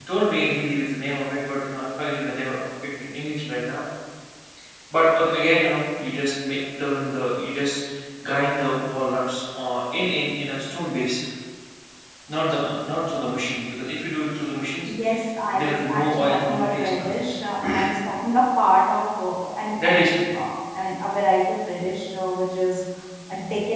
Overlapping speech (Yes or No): Yes